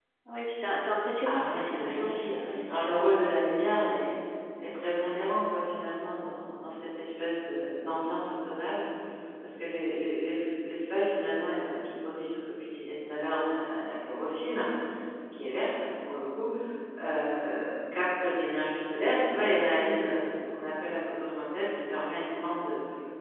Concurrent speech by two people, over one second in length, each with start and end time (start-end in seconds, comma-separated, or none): 1.2-3.2